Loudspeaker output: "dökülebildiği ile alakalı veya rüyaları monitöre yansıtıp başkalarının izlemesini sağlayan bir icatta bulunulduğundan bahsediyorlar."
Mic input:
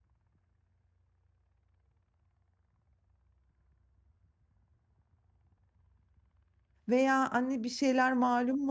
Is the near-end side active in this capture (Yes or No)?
Yes